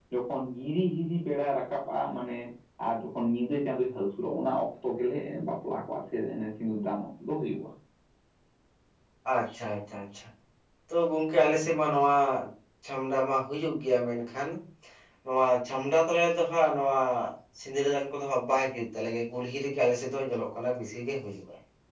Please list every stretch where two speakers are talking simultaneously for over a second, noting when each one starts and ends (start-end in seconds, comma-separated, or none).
none